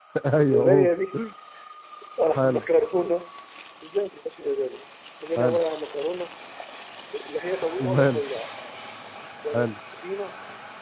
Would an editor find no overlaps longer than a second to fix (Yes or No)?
Yes